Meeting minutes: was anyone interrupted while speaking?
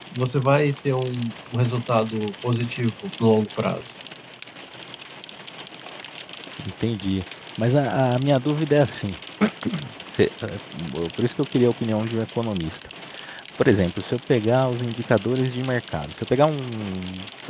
No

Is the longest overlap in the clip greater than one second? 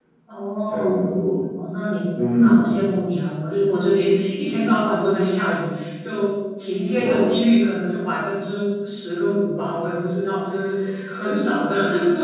No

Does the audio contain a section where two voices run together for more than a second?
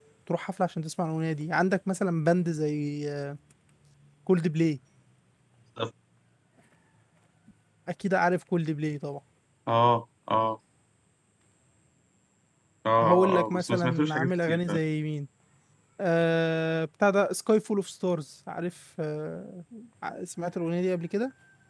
Yes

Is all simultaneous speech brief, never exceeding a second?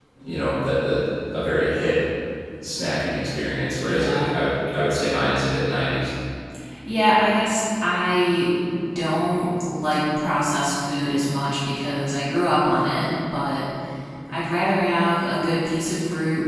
Yes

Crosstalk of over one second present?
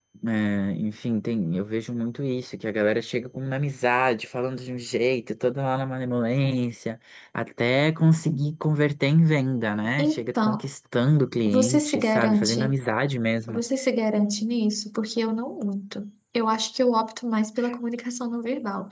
Yes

